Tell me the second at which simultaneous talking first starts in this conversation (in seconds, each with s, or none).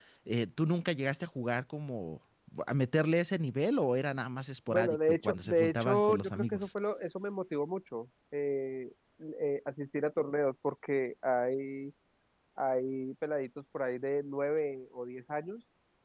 4.7 s